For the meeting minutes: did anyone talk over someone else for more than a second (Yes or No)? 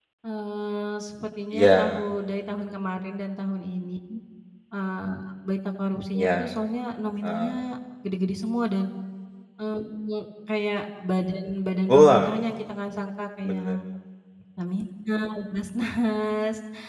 No